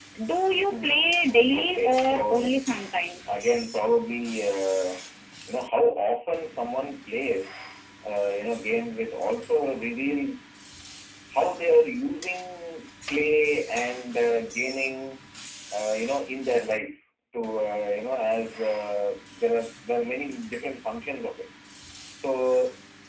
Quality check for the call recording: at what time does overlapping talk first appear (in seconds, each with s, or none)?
0.7 s